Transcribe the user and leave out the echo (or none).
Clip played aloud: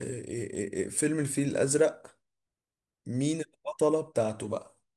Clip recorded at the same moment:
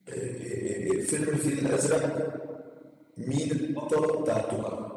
none